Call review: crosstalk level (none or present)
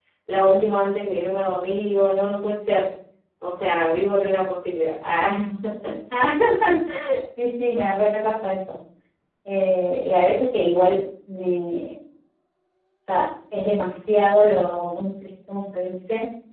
none